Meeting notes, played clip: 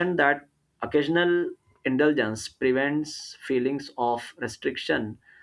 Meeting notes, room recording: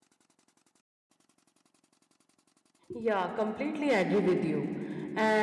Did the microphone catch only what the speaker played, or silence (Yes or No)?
No